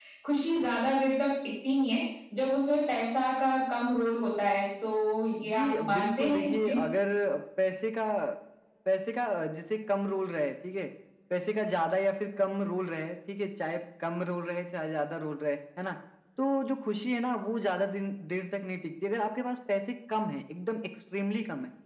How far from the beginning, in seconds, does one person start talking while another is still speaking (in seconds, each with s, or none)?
5.5 s